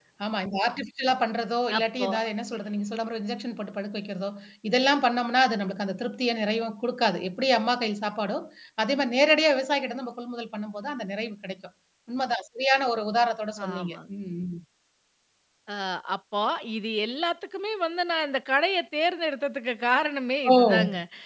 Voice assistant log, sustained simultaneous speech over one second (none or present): none